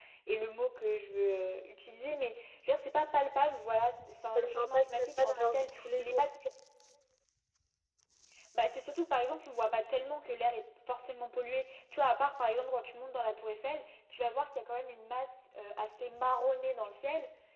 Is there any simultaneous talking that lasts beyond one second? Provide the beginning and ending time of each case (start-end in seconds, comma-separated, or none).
4.4-6.3